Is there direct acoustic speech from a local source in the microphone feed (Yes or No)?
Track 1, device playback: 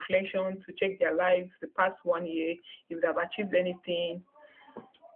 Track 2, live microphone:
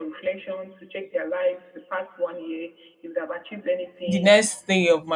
Yes